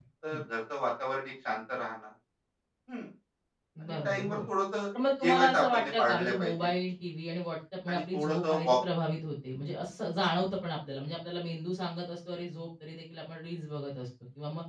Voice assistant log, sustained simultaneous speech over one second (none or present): present